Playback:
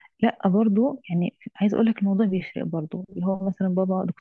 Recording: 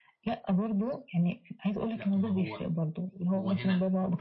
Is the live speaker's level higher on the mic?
No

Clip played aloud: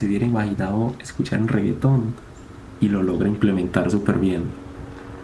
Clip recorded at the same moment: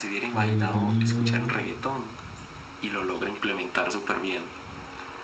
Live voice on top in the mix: Yes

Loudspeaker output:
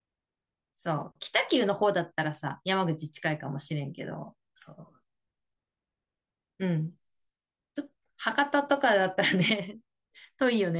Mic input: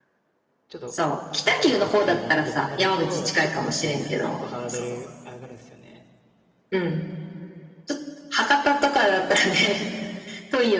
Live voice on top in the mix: No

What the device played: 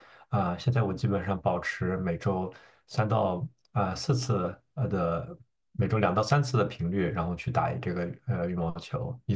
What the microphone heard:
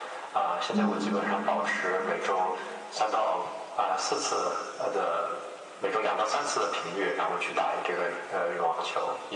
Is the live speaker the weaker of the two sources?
No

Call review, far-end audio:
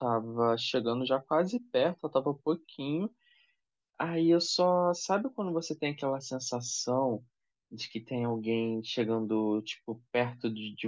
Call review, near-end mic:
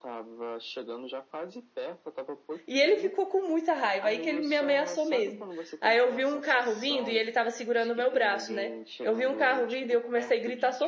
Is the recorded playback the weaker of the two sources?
Yes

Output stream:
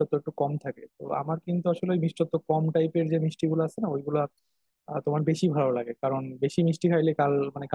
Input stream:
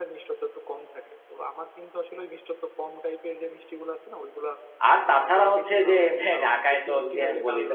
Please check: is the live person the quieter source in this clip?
No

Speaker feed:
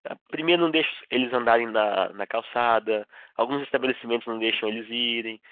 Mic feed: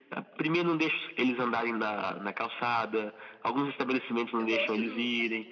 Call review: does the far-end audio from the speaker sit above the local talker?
Yes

